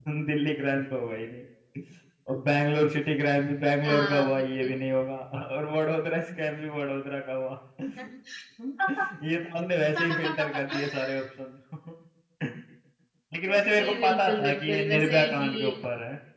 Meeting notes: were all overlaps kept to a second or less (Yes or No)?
No